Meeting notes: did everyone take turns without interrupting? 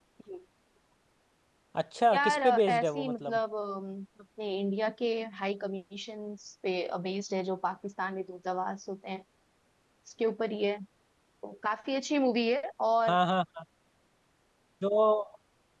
No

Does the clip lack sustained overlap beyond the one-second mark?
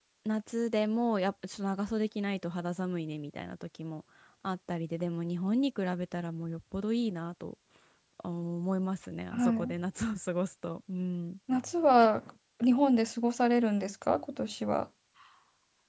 Yes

